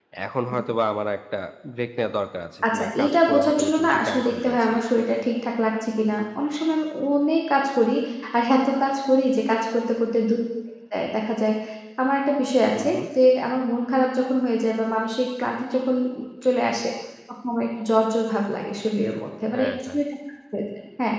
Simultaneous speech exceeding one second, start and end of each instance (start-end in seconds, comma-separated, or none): 2.7-4.7